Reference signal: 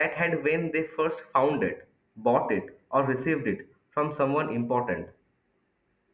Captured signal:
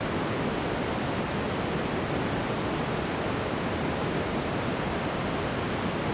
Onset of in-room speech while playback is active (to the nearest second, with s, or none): none